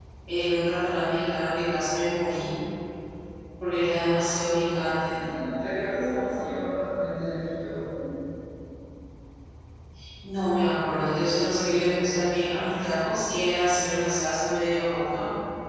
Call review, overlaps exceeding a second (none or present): none